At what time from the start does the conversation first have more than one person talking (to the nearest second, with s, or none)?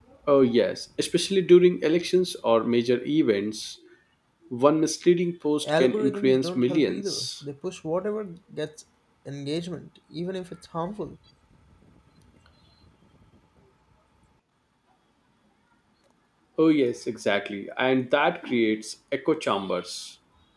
6 s